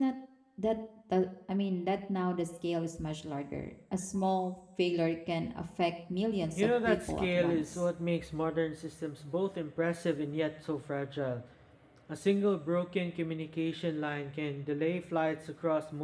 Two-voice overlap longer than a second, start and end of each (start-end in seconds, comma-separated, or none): 6.5-7.8